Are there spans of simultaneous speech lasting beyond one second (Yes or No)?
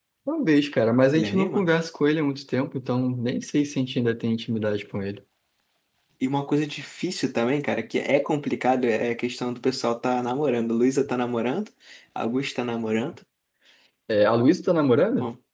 No